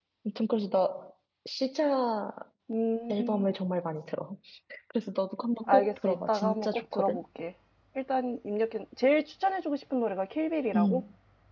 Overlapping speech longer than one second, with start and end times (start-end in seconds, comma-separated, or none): 5.7-7.2